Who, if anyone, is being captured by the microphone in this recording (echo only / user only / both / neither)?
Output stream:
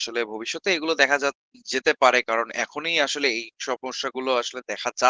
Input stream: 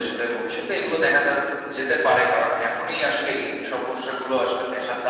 echo only